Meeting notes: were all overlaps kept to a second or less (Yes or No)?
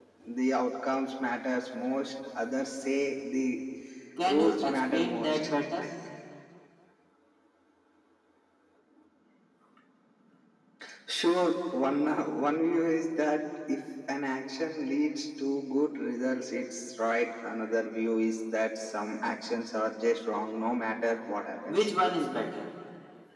No